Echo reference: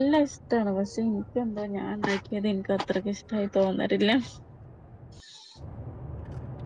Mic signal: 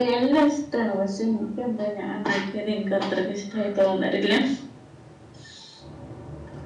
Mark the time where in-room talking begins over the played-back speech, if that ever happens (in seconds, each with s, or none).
none